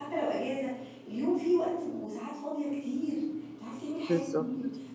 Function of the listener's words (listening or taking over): listening